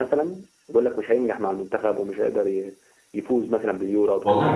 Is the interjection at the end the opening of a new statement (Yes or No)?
Yes